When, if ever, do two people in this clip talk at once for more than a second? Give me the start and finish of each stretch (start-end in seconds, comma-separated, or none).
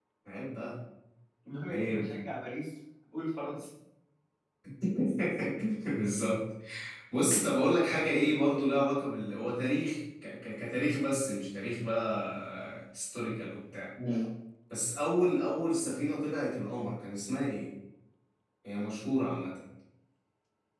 none